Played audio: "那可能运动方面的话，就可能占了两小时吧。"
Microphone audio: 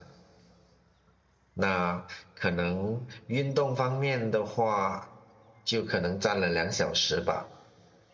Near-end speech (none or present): none